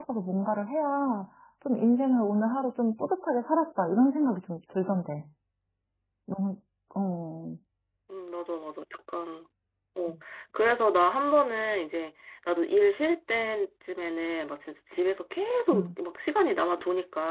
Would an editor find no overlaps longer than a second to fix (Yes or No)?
Yes